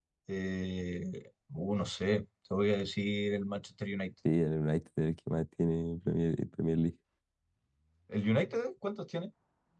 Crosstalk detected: No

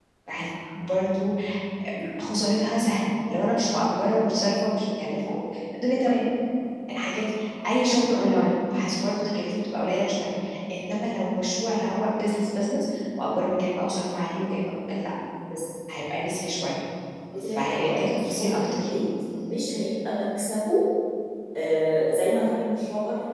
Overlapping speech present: Yes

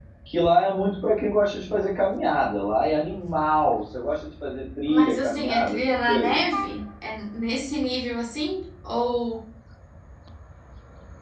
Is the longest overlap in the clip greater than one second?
Yes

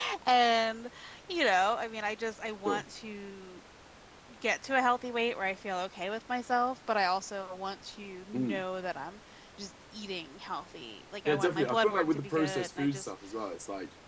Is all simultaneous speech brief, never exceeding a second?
No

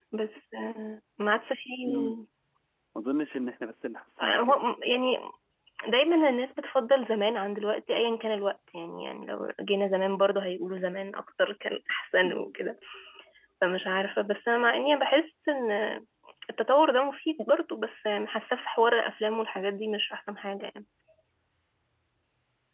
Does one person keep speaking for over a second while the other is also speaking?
No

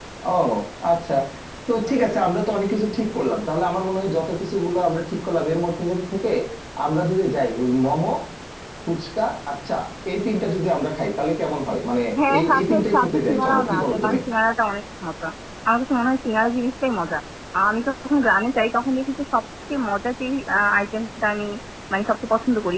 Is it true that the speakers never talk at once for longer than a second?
No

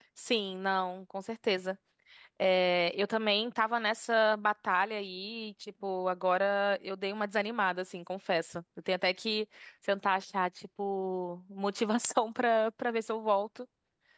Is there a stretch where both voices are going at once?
No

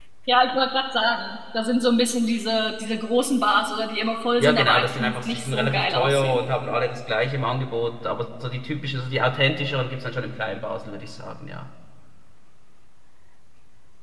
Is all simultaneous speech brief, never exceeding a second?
No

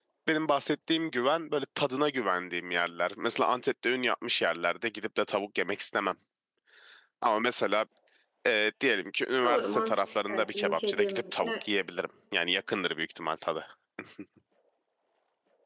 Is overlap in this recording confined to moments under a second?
No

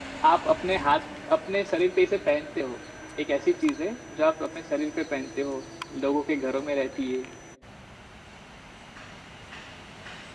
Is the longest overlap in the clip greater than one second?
No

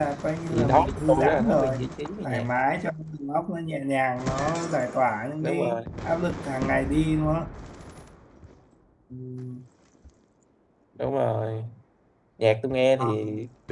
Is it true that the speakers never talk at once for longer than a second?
No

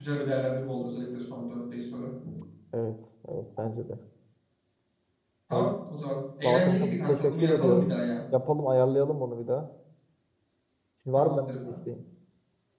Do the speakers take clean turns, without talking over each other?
No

